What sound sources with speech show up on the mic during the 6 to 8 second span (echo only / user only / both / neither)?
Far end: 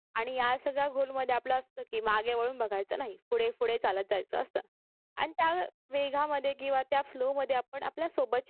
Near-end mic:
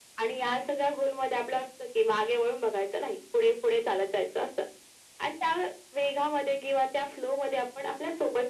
echo only